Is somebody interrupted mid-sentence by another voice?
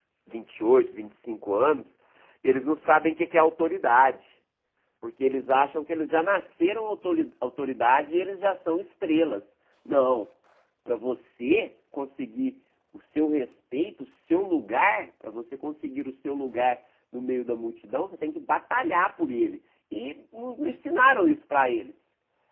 No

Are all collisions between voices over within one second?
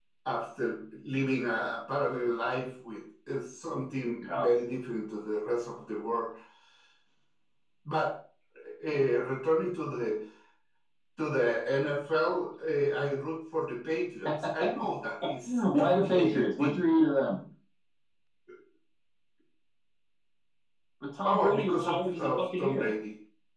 No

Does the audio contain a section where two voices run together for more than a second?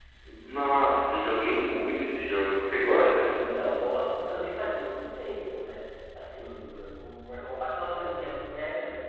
No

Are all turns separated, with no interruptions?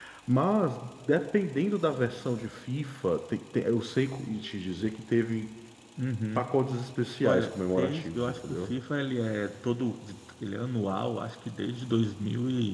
No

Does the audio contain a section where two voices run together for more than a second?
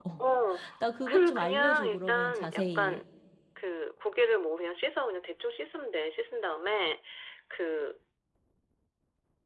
Yes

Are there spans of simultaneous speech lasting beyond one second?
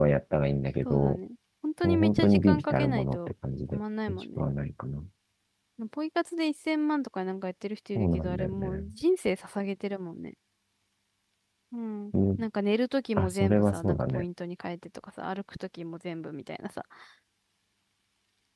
Yes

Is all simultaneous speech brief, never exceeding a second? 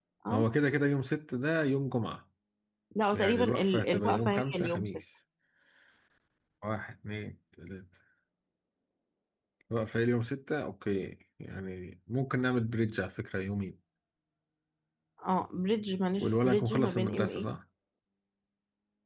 No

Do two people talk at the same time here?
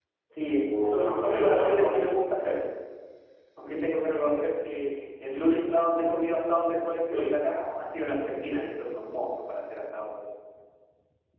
Yes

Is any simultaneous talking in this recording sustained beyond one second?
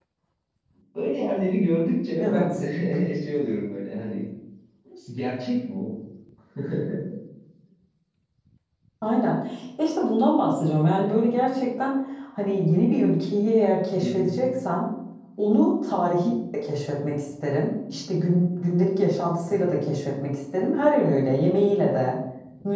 No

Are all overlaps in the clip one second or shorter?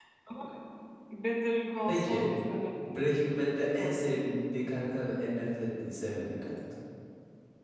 Yes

